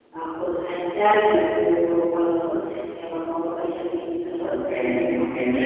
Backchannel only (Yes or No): No